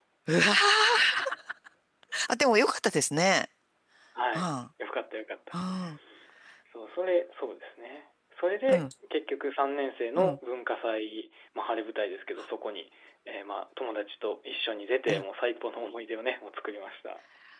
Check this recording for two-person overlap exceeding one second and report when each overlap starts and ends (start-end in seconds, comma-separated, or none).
none